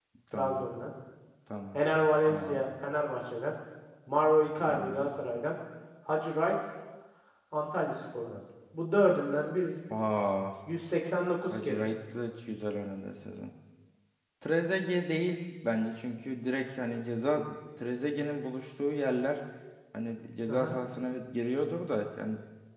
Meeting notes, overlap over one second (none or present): none